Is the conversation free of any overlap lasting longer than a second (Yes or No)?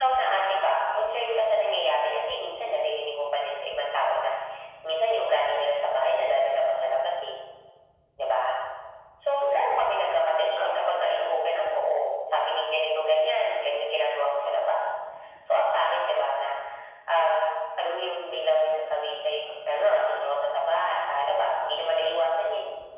No